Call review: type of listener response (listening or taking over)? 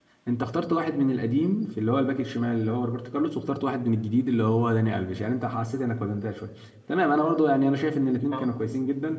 listening